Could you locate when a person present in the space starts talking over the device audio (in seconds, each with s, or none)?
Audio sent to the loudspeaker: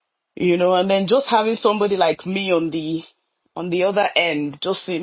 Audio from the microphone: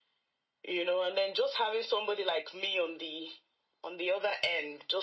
none